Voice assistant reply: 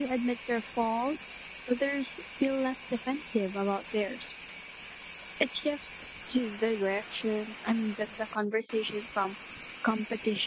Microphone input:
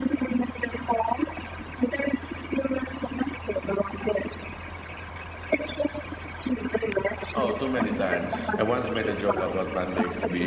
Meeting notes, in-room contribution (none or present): present